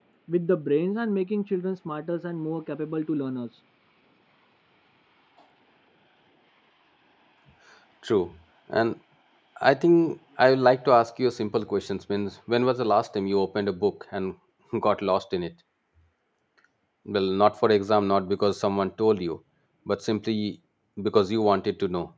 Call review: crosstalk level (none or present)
none